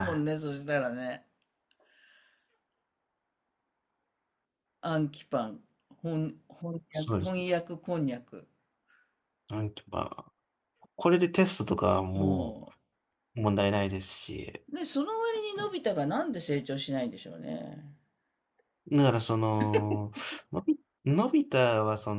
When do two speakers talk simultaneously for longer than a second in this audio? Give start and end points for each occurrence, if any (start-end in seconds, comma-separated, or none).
none